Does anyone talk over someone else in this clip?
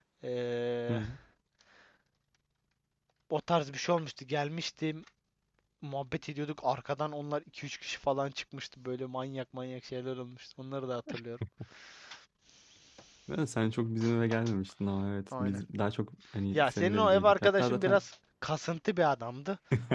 Yes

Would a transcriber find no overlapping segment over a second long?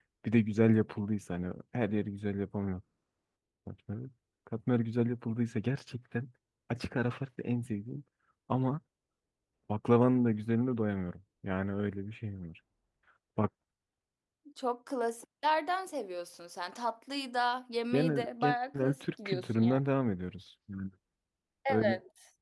No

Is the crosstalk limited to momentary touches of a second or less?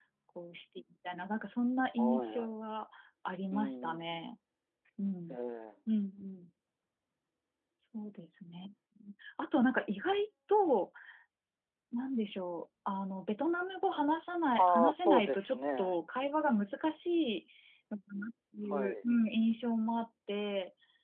No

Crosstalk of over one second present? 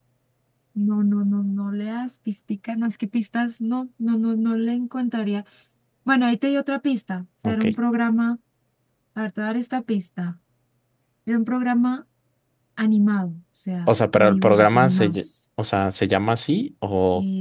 Yes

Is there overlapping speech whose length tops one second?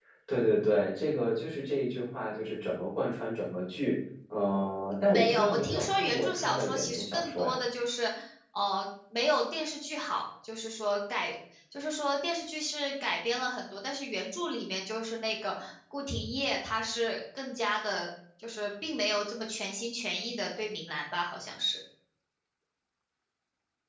Yes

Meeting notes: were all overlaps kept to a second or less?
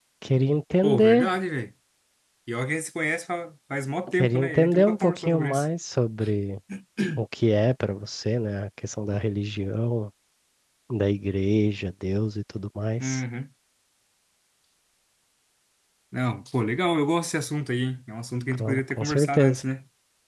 No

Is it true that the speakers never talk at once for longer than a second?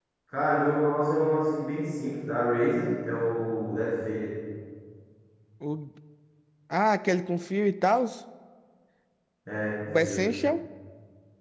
Yes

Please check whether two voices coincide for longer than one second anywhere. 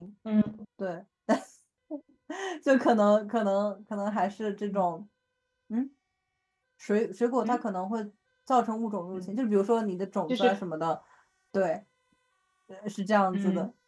No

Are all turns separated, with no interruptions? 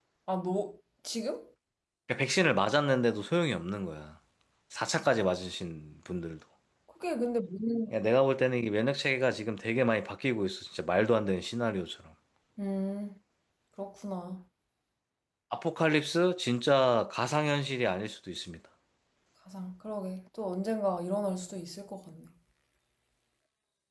Yes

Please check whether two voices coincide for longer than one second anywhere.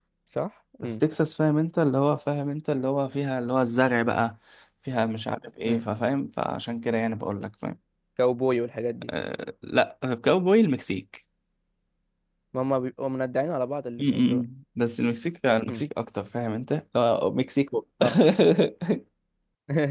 No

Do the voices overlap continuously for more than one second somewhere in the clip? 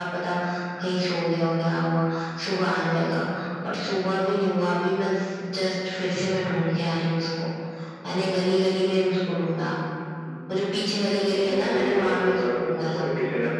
Yes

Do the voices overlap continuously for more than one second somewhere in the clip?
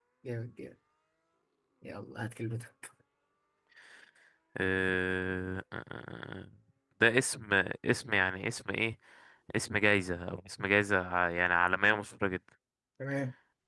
No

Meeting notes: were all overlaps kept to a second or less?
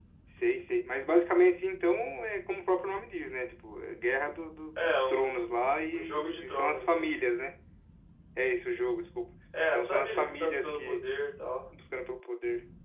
No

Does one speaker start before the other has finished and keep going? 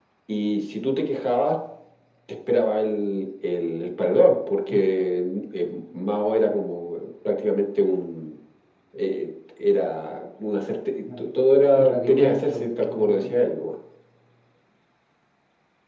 Yes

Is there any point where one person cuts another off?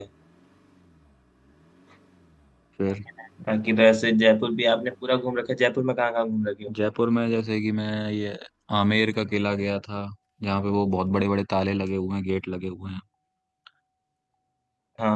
No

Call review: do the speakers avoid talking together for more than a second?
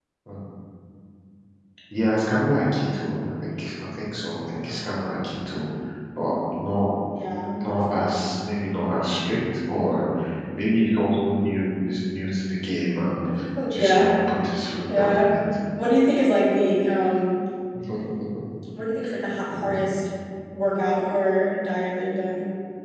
Yes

